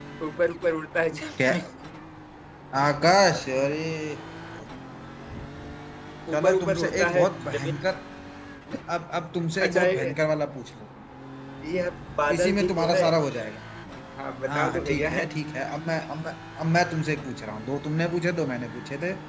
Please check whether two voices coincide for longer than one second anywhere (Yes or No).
Yes